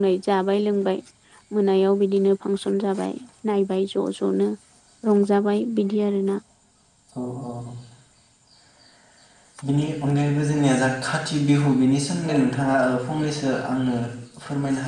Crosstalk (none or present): none